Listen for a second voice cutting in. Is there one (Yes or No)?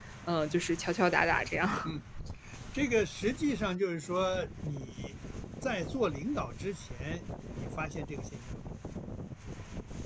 No